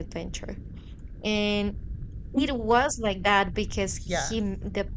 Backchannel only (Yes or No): Yes